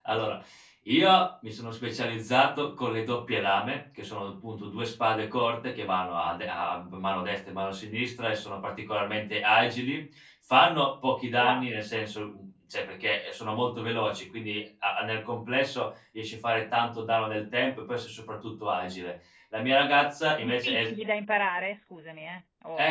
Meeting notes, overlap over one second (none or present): none